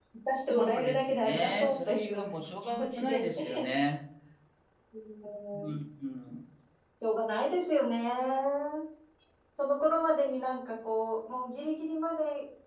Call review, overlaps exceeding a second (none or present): present